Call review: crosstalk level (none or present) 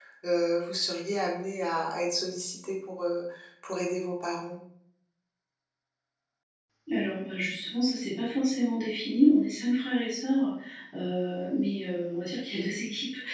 none